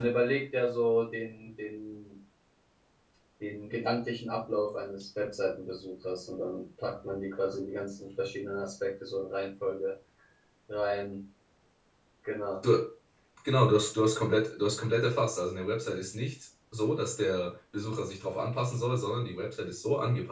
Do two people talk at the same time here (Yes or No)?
No